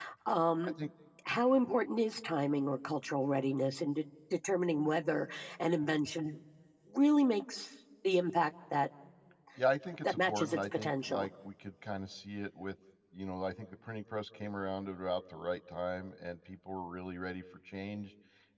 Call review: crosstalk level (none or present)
present